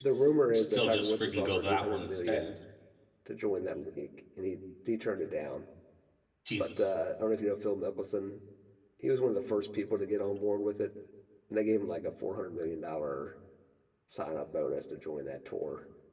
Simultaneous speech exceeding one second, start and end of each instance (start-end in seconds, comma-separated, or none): 0.5-2.5